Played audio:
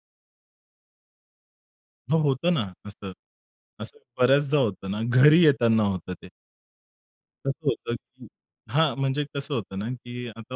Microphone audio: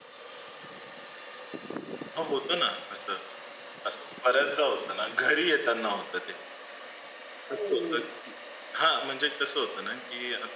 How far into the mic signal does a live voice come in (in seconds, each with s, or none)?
7.5 s